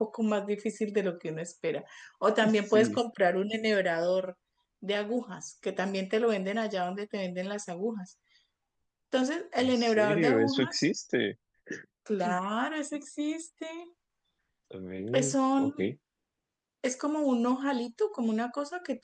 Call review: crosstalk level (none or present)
present